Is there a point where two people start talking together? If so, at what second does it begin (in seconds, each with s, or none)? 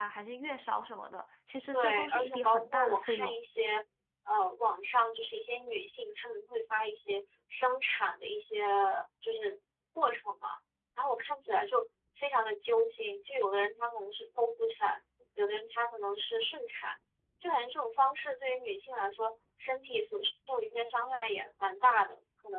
1.7 s